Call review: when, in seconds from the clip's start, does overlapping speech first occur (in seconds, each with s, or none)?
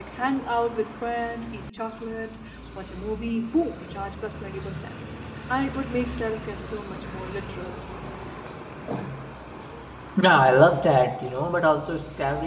none